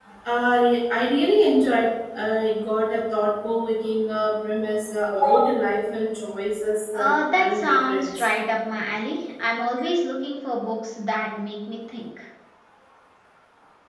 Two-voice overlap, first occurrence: 6.9 s

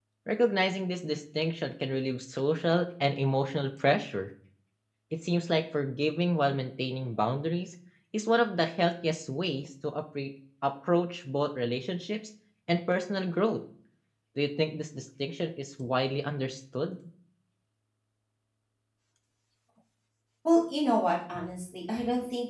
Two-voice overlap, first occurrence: none

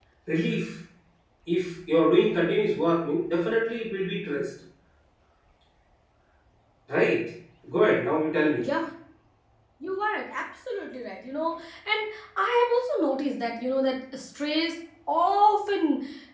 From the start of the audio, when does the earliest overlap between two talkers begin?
none

